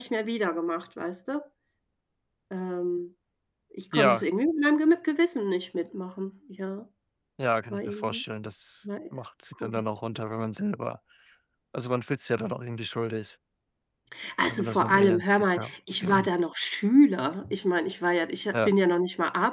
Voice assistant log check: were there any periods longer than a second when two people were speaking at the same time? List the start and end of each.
14.5-15.7

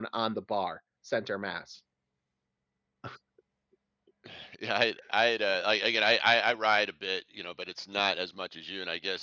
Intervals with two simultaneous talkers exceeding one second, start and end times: none

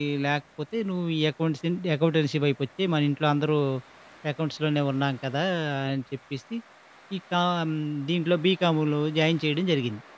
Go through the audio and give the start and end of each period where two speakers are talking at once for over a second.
none

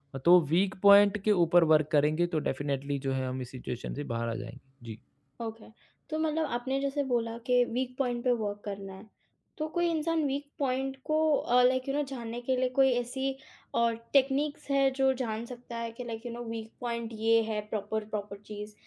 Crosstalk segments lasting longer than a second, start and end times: none

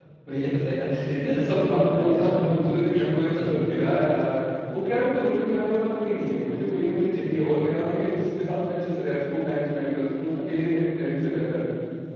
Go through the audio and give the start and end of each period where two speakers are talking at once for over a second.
1.2-2.7

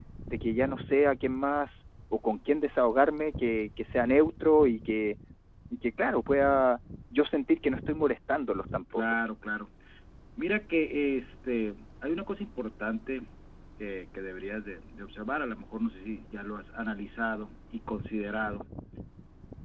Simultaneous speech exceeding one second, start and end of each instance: none

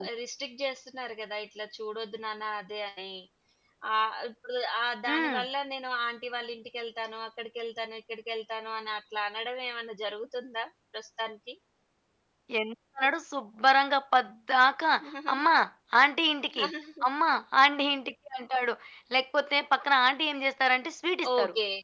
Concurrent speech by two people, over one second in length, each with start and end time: none

